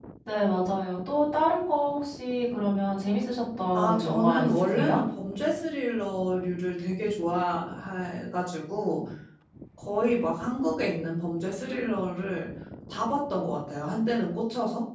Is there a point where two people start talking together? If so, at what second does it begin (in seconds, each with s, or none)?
3.7 s